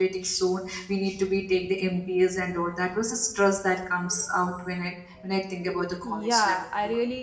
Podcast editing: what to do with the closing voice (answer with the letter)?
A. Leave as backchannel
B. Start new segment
B